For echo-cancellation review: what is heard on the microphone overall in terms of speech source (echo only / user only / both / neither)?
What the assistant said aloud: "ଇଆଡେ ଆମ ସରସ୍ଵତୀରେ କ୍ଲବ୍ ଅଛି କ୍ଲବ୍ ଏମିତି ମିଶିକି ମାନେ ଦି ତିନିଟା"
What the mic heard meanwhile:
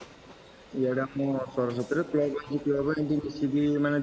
echo only